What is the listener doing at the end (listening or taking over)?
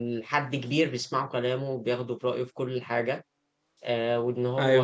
listening